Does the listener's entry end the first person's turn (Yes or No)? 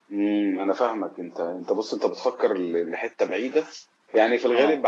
No